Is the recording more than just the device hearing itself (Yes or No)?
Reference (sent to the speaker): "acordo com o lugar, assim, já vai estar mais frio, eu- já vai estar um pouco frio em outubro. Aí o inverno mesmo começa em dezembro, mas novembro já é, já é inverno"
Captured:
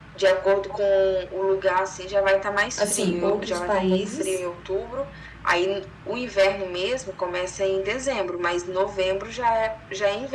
Yes